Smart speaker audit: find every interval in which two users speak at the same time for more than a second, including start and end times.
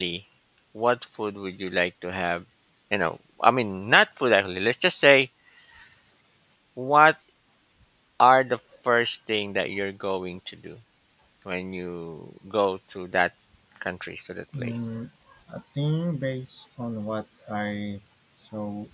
none

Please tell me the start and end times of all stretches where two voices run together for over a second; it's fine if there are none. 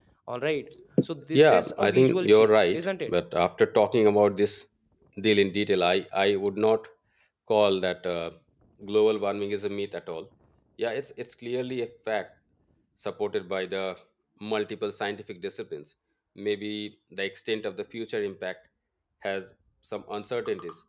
1.3-3.2

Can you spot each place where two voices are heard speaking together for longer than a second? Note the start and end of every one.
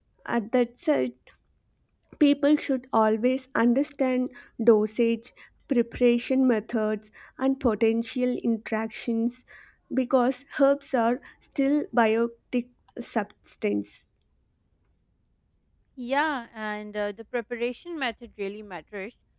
none

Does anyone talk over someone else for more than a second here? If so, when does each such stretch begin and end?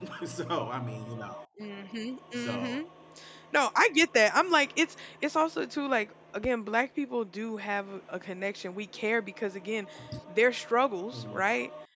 none

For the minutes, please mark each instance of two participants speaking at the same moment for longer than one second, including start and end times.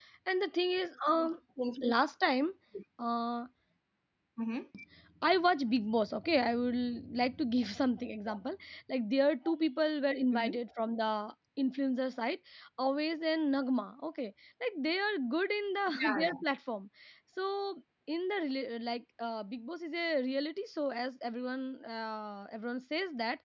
none

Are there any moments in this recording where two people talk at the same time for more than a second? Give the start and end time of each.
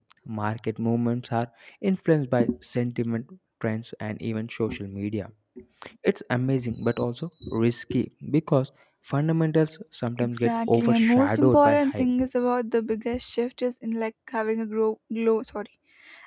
10.2-12.1

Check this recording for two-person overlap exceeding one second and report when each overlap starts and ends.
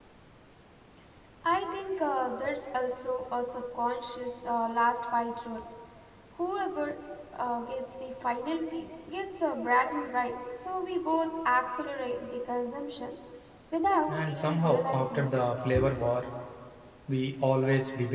14.1-15.3

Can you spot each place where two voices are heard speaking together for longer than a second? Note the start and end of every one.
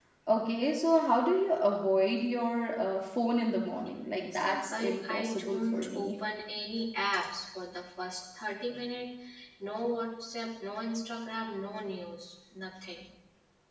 4.3-6.1

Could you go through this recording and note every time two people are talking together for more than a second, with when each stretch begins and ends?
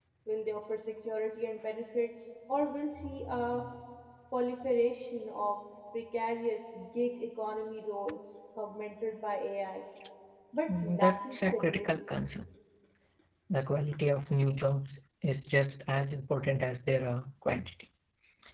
10.7-12.0

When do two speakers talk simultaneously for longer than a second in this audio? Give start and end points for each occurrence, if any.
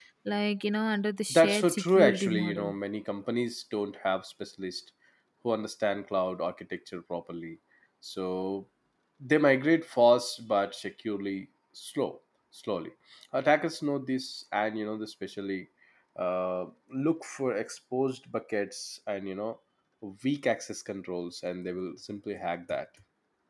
1.3-2.6

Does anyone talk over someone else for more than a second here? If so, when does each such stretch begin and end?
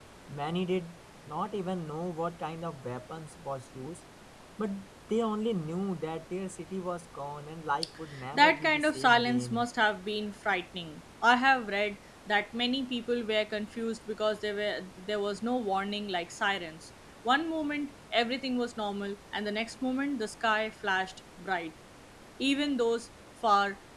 8.3-9.7

